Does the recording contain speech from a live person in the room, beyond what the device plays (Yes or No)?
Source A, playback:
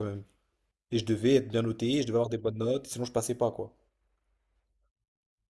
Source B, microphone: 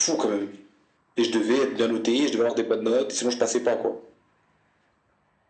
No